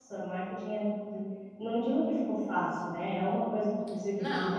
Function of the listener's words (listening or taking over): listening